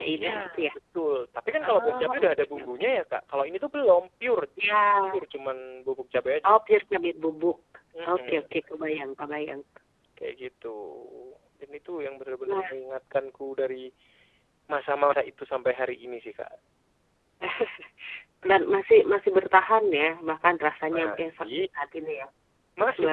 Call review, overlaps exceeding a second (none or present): present